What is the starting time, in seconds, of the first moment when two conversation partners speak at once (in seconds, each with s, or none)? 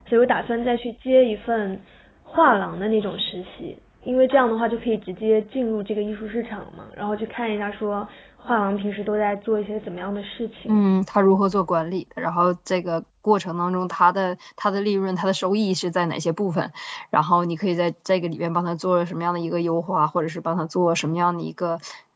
none